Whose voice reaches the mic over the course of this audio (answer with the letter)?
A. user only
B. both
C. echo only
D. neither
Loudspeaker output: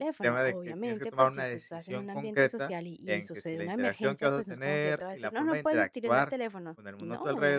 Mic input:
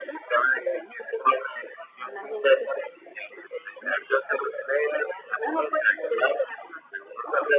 C